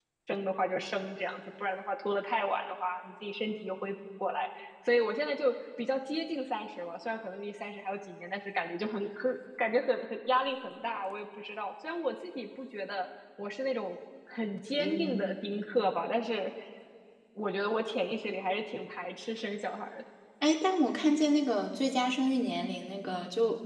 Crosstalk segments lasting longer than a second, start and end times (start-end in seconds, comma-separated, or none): none